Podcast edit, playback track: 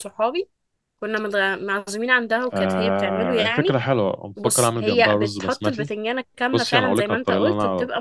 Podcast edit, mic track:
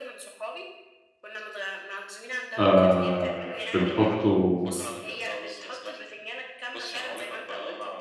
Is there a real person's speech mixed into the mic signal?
Yes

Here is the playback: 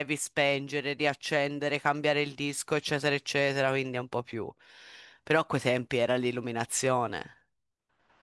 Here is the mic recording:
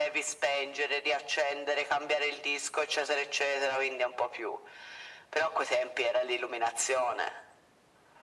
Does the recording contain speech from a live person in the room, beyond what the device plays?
No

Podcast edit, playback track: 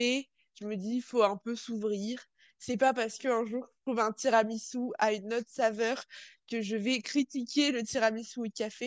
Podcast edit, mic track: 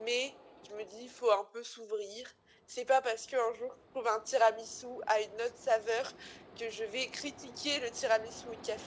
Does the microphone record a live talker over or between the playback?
No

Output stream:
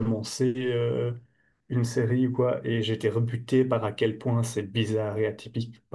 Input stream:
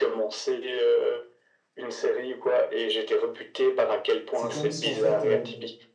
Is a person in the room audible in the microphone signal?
Yes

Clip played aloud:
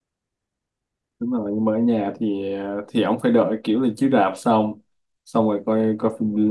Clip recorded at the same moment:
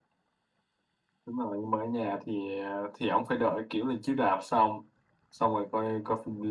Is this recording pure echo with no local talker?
Yes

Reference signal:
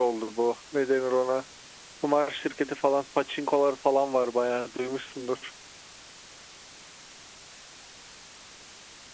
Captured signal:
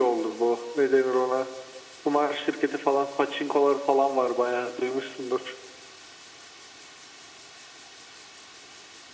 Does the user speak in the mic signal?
No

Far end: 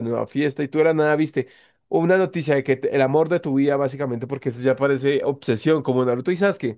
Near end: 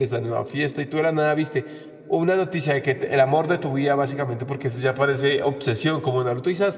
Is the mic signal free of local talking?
Yes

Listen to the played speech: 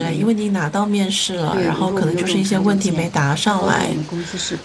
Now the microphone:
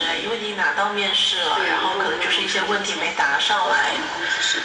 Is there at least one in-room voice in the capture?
No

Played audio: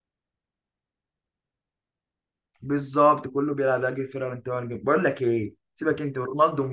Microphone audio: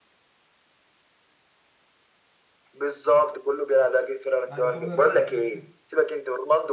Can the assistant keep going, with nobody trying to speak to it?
No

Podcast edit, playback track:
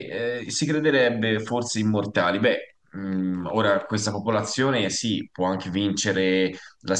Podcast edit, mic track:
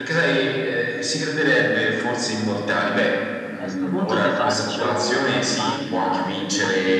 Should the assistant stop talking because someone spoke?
Yes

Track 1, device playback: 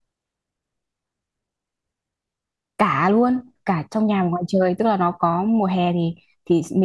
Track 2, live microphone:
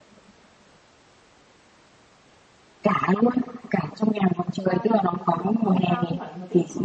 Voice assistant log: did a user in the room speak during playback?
Yes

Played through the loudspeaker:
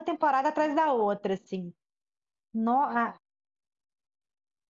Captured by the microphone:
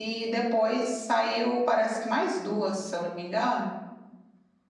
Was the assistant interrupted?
Yes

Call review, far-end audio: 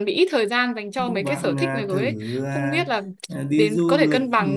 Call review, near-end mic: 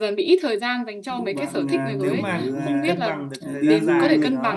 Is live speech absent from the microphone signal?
No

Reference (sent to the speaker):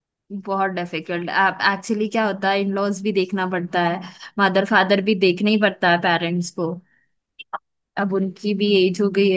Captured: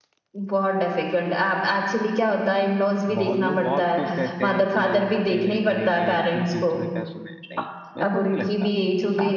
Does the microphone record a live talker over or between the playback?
Yes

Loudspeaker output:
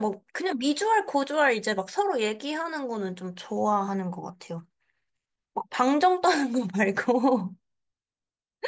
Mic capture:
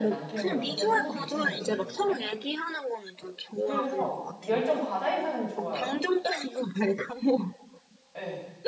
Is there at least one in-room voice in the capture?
Yes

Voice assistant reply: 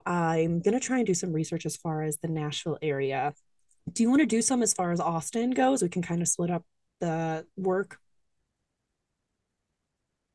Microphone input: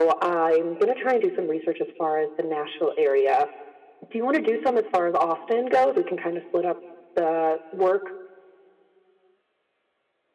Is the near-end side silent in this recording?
Yes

